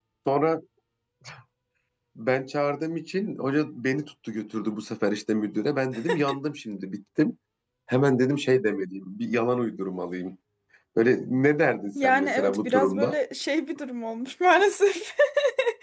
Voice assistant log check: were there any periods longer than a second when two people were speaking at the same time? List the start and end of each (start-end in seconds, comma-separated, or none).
11.9-13.2